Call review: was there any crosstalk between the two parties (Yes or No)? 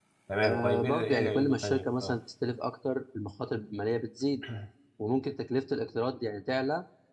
Yes